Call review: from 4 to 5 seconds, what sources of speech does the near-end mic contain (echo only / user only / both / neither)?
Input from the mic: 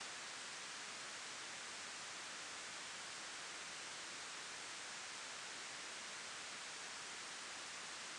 neither